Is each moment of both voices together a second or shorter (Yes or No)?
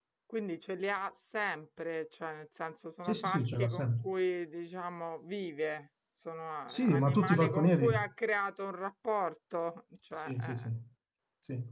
No